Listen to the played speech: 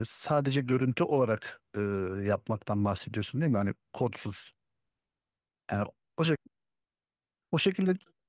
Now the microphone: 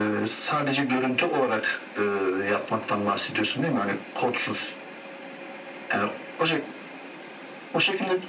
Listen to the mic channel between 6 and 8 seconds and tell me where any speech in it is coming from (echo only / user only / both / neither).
echo only